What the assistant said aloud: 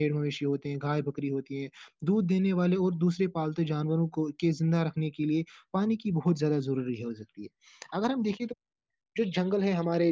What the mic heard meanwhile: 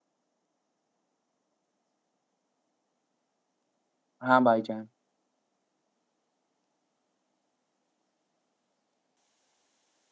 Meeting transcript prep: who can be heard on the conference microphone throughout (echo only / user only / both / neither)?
user only